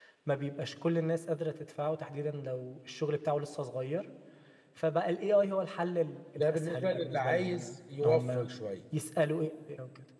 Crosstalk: present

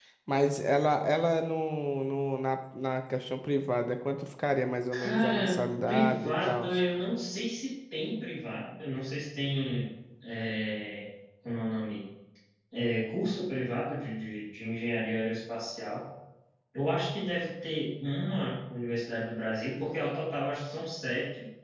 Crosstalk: present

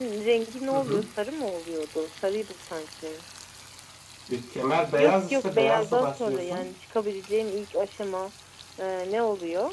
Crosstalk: present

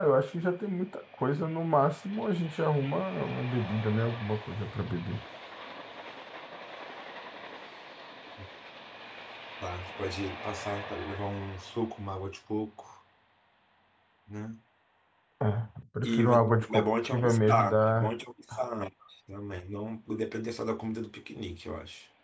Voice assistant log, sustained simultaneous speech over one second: present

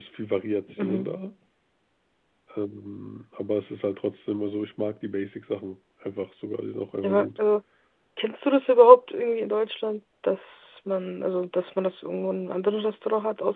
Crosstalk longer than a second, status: none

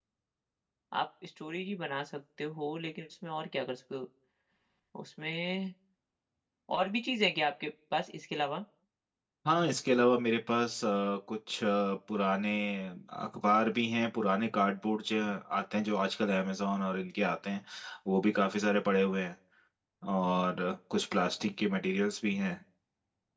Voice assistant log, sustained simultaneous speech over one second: none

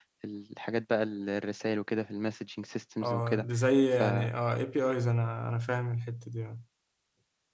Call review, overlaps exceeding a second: none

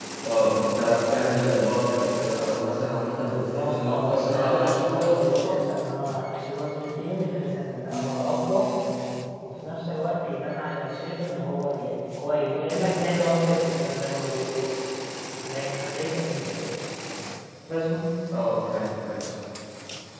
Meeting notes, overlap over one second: present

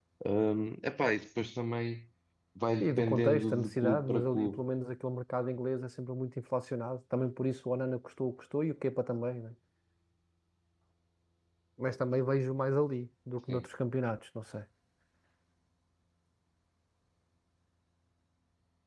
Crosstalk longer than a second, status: present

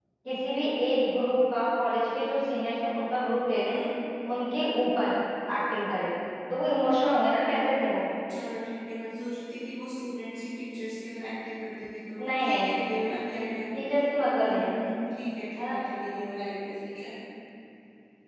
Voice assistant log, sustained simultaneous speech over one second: none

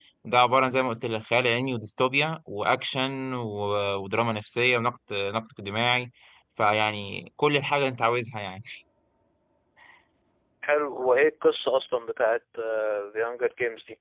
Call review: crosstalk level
none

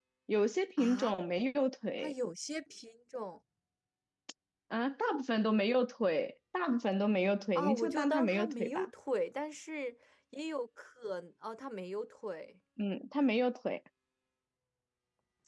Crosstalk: present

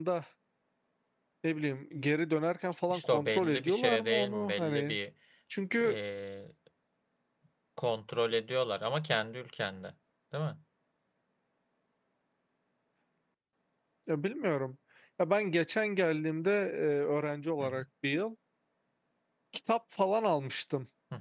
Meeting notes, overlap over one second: present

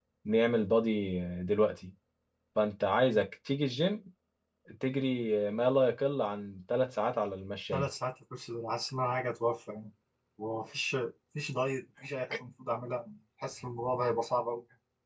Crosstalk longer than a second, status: none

